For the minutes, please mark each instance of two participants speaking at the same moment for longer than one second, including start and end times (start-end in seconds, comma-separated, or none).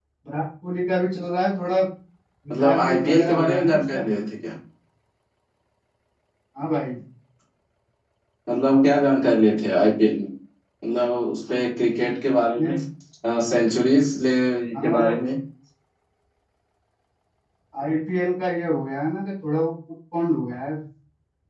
2.6-4.1